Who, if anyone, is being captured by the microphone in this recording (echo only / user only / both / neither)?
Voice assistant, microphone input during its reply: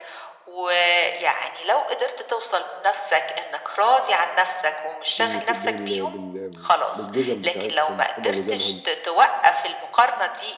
both